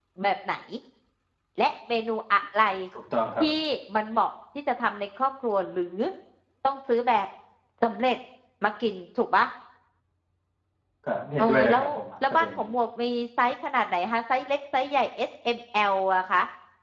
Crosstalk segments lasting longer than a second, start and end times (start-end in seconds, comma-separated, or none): none